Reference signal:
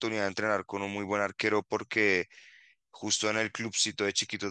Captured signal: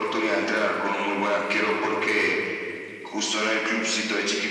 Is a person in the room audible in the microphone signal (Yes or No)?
No